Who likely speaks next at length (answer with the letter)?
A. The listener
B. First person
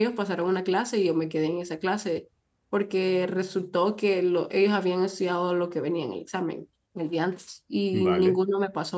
B